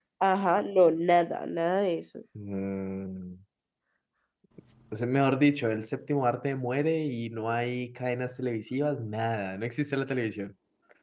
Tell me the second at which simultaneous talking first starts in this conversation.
none

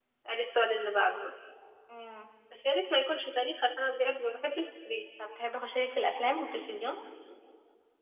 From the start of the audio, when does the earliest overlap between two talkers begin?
none

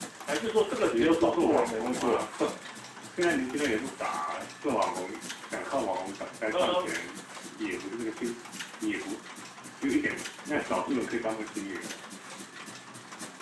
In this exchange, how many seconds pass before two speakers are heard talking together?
0.9 s

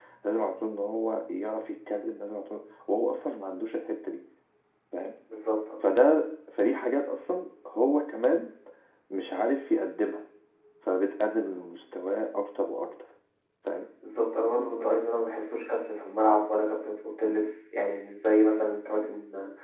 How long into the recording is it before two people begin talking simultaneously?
none

